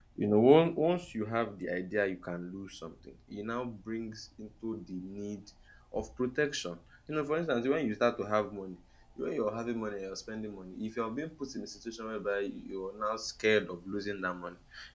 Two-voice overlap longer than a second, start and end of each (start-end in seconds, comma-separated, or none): none